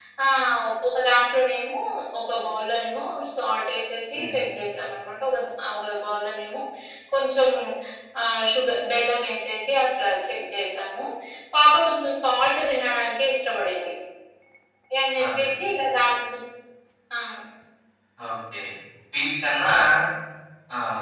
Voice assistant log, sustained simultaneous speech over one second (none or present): none